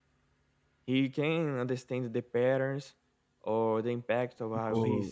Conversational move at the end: taking over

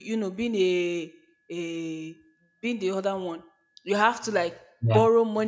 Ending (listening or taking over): listening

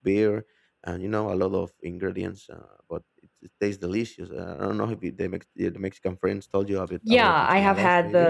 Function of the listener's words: taking over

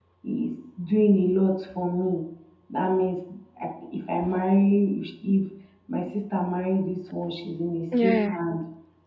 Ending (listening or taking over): listening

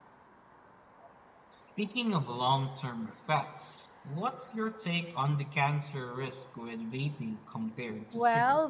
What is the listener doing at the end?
taking over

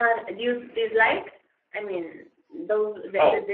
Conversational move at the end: listening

